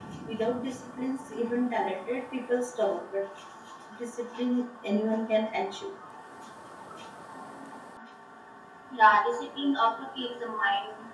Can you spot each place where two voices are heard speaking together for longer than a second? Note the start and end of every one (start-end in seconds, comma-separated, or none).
none